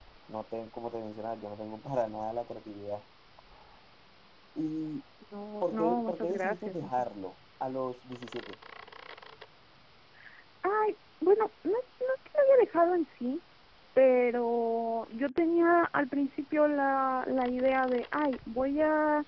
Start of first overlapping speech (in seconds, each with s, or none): 5.6 s